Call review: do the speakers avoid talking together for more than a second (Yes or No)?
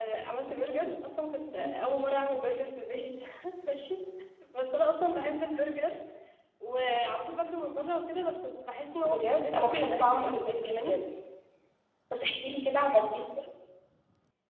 No